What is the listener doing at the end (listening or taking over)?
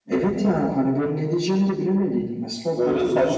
taking over